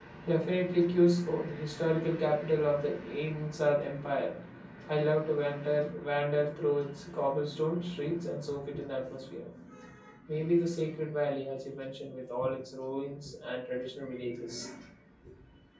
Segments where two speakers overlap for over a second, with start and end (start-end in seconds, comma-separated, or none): none